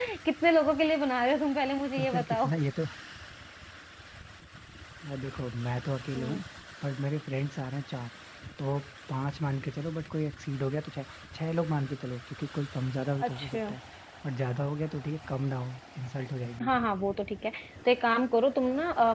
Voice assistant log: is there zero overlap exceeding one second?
Yes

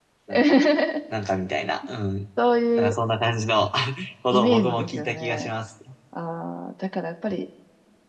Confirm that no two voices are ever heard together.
No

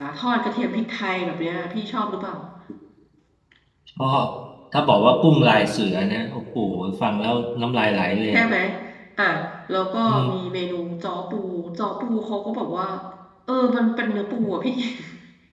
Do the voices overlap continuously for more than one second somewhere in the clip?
No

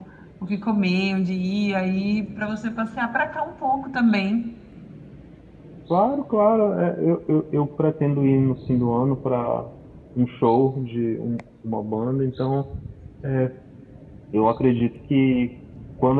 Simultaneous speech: No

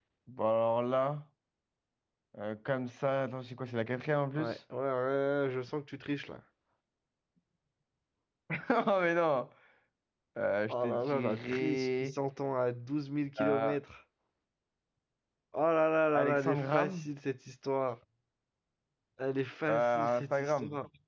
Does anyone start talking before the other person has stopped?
Yes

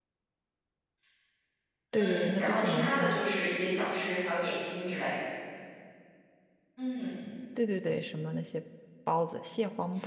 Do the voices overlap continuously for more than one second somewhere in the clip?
Yes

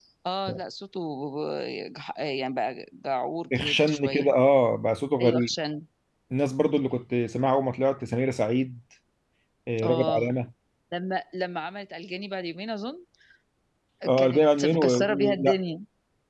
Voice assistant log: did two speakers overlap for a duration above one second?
Yes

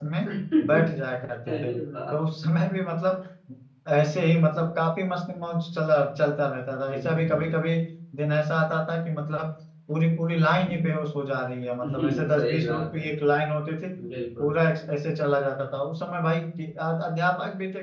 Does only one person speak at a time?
No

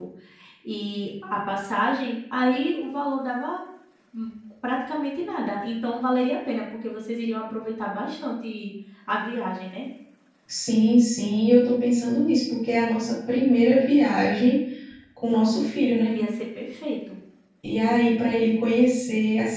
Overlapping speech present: No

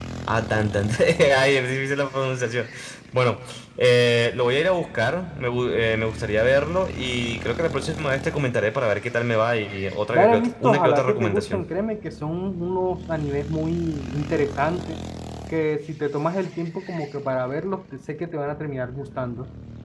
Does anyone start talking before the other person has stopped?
Yes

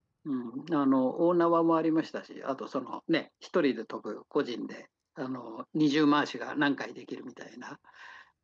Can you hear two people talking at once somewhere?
No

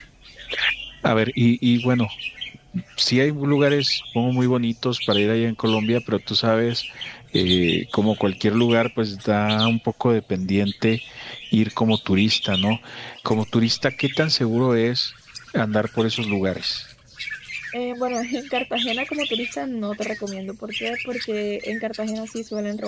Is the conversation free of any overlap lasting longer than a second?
Yes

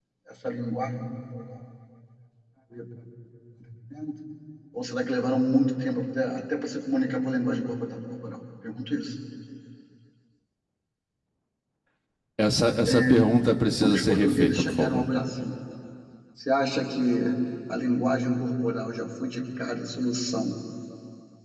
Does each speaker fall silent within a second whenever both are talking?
No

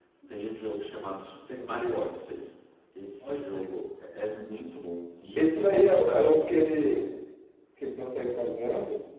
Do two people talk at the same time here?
Yes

